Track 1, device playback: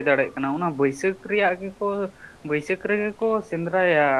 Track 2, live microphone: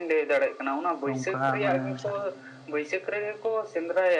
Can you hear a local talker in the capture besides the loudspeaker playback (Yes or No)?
Yes